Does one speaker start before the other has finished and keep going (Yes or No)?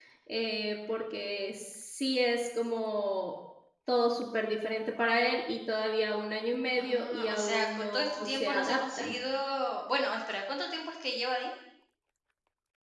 Yes